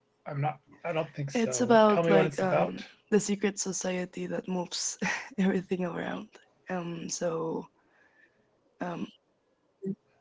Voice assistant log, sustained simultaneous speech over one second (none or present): present